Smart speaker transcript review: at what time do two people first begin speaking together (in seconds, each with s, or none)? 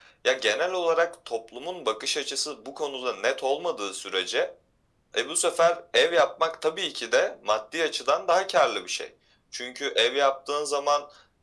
none